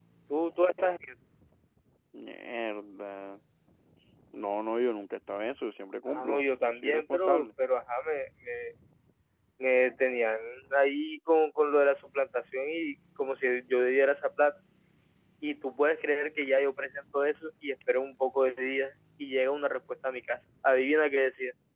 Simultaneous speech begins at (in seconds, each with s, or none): 6.1 s